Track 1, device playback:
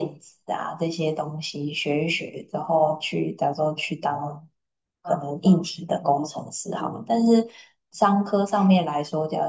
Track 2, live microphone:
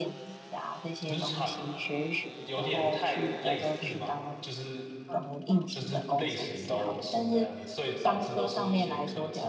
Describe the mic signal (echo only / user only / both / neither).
both